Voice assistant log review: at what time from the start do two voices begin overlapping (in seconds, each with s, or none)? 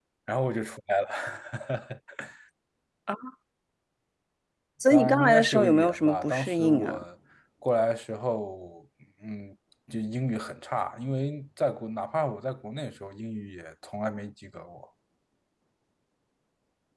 4.9 s